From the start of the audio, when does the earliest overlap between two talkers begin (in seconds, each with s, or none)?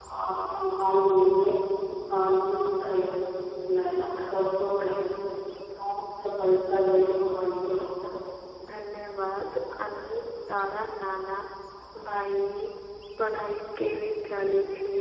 none